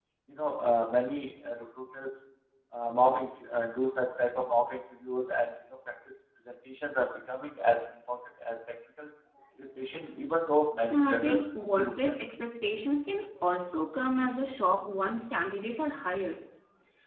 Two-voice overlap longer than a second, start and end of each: 10.9-12.1

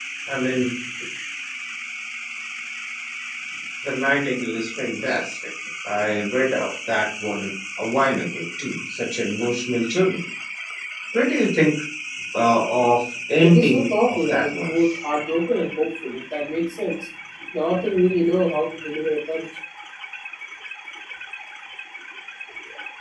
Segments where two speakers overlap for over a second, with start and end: 13.4-14.7

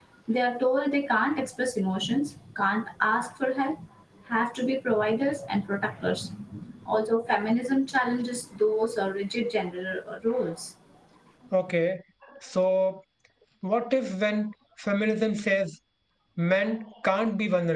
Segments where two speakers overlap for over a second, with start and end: none

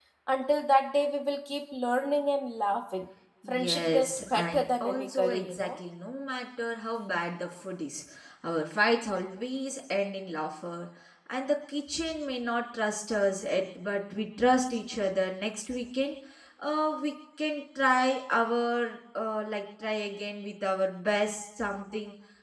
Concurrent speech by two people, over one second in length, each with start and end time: 3.5-5.8

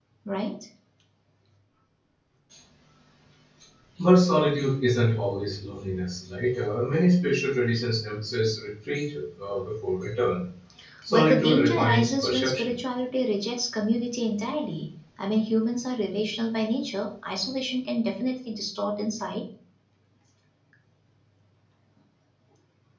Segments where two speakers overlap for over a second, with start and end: 11.1-12.8

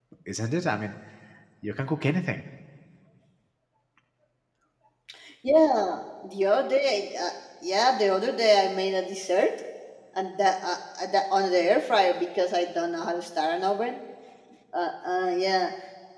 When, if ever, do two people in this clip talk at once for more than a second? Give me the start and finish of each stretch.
none

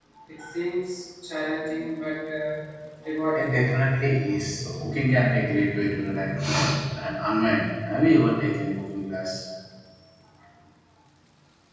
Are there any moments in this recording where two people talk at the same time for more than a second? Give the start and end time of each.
none

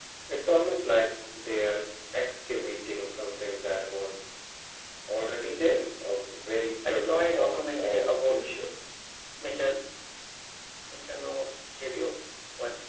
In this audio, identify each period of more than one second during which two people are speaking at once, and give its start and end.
6.9-8.4

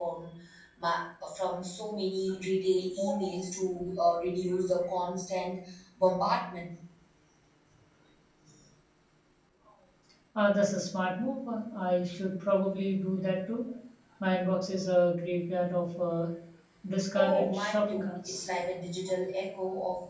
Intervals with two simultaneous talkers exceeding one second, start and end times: 17.1-18.5

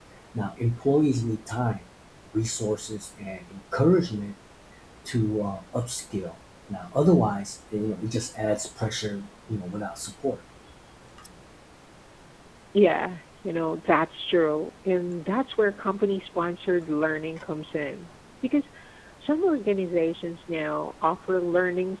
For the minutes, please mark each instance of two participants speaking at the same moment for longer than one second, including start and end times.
none

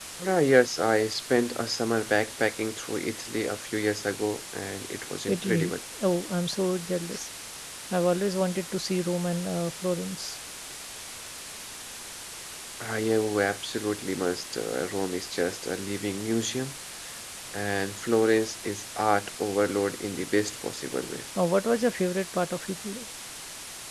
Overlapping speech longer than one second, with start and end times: none

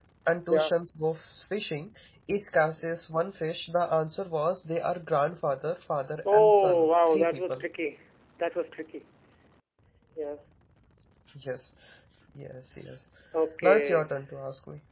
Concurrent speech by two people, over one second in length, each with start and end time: 6.3-7.6

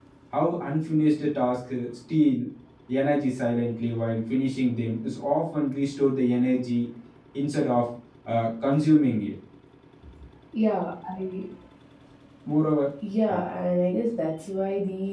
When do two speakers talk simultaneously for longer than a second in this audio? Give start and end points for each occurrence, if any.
none

